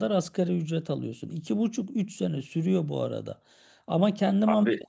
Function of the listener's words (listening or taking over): listening